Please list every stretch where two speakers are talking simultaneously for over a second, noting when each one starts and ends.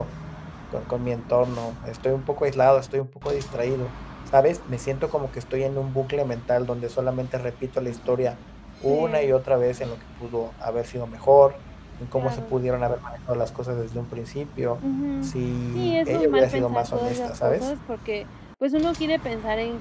15.7-17.7

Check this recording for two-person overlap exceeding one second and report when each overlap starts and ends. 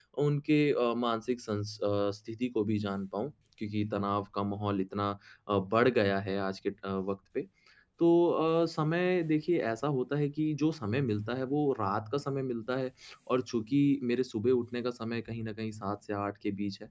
none

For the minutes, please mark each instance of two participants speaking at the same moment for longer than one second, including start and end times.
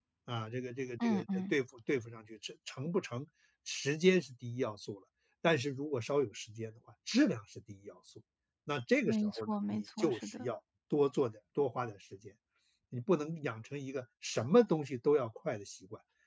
9.1-10.5

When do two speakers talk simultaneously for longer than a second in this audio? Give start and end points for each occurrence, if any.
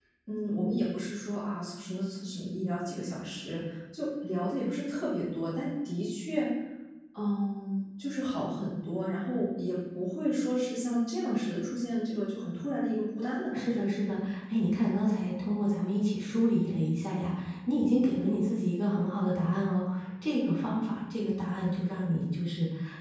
none

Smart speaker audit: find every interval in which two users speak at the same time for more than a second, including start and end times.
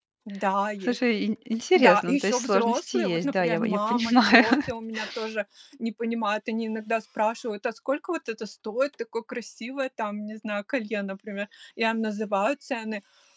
1.8-4.4

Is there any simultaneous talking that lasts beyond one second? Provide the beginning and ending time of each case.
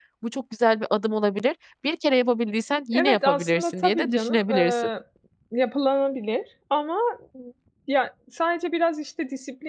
2.9-4.8

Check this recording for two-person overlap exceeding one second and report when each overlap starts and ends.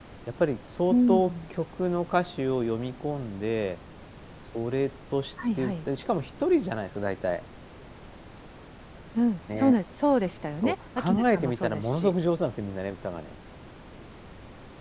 10.6-12.1

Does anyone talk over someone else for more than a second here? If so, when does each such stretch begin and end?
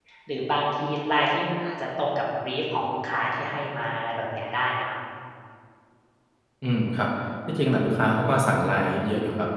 none

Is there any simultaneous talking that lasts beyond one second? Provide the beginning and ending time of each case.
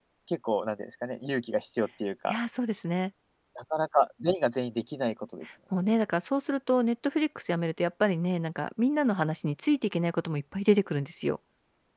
none

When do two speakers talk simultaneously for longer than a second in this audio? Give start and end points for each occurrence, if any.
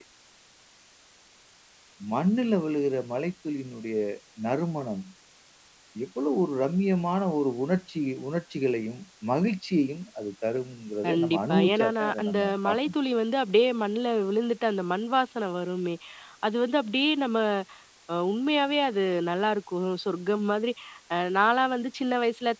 11.1-12.9

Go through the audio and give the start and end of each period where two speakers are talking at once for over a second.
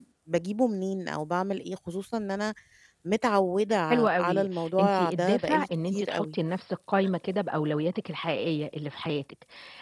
3.9-6.4

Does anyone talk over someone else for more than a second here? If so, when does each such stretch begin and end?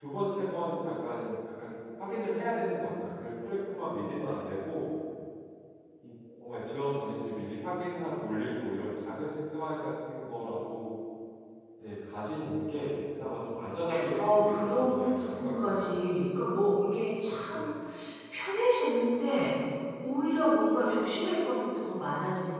14.2-16.0

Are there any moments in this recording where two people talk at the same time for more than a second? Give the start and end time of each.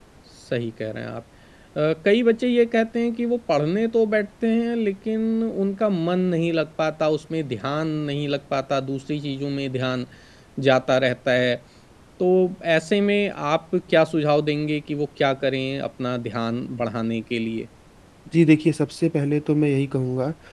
none

